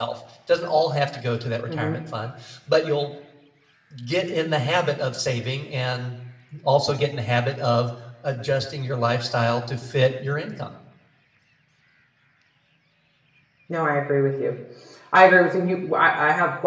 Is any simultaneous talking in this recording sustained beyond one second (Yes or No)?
No